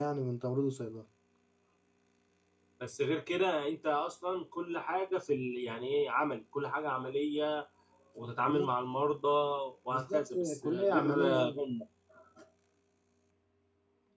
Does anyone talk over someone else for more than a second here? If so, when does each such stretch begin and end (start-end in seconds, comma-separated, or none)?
9.9-11.6